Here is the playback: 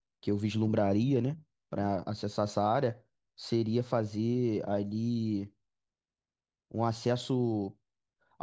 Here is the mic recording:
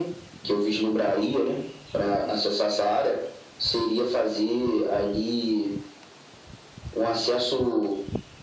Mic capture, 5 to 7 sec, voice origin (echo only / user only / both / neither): echo only